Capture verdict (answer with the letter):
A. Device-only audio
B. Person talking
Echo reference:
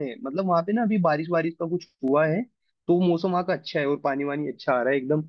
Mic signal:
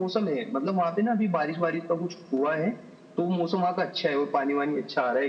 A